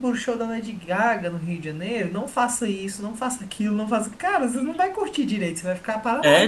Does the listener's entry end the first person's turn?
Yes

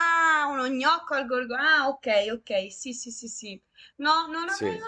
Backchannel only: Yes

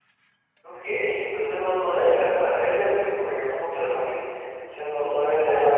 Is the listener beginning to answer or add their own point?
Yes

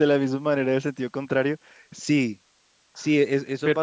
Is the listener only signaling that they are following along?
Yes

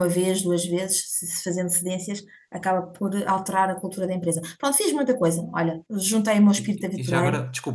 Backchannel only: No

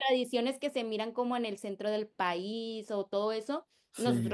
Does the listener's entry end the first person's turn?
No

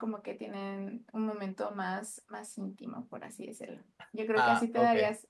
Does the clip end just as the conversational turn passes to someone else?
No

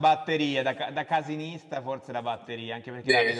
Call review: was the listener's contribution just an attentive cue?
Yes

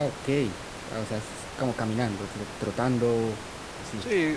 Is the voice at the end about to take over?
Yes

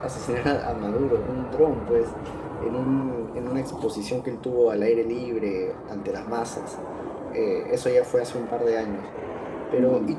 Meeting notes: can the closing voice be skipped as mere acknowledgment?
Yes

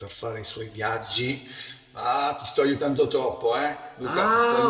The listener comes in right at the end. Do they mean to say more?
Yes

